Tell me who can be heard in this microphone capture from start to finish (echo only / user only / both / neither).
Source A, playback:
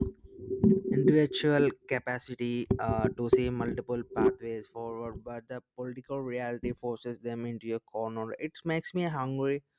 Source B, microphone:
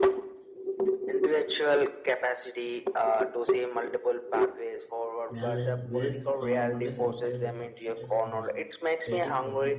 both